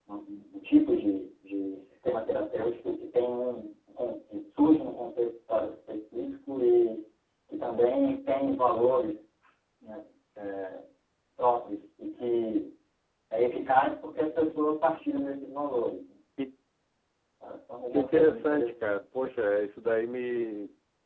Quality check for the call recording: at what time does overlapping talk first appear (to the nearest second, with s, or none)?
18 s